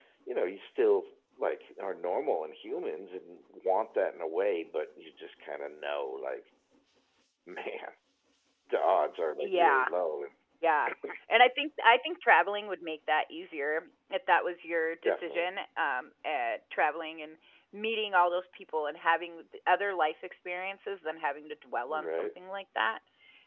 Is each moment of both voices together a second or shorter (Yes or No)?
Yes